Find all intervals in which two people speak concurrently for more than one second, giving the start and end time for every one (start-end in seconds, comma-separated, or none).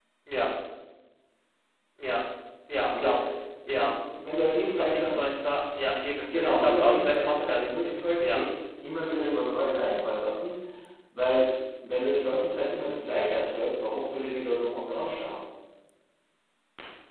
6.4-8.4